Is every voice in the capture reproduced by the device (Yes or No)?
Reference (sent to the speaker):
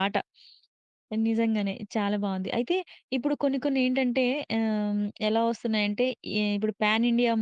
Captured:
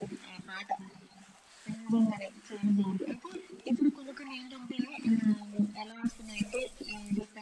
Yes